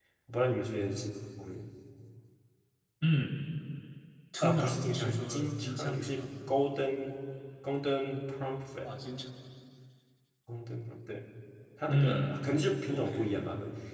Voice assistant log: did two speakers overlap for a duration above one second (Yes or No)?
Yes